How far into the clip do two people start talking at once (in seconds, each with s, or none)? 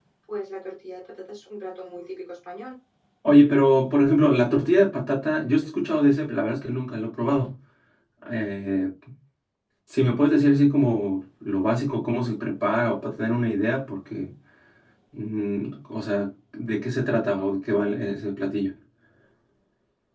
none